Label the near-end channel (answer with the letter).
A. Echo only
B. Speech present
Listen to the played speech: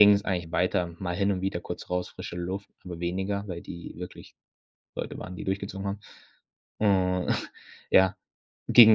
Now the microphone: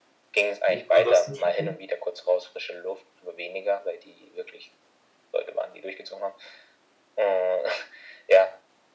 B